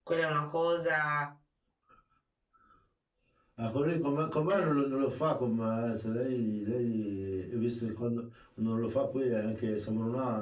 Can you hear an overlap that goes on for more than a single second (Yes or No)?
No